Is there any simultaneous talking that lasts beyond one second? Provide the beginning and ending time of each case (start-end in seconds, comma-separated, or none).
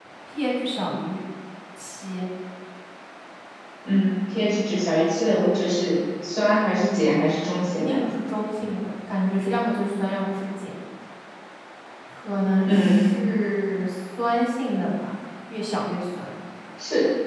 none